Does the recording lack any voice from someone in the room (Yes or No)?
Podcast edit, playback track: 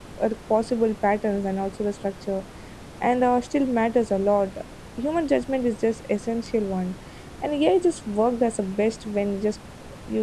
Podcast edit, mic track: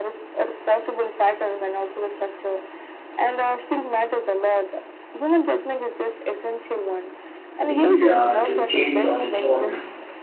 No